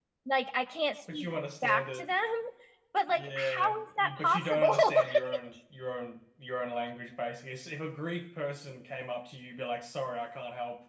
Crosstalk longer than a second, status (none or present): present